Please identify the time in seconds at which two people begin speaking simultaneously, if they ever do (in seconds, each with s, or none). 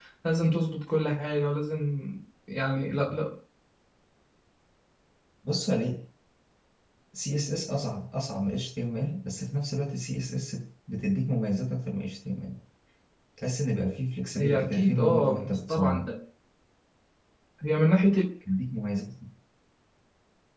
14.3 s